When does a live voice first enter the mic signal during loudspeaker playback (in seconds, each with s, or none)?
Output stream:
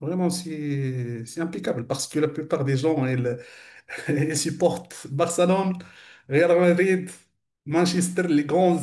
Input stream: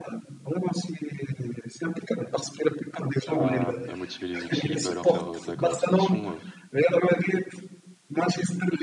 3.2 s